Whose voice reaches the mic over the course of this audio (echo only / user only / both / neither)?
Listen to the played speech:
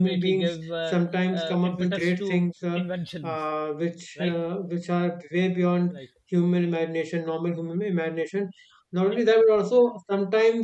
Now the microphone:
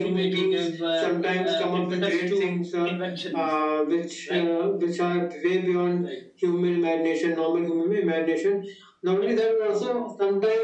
echo only